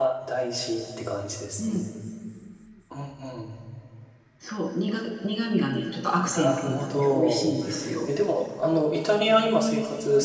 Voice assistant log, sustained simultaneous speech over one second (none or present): present